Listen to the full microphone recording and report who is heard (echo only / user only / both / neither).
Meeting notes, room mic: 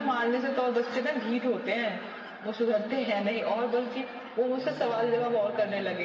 both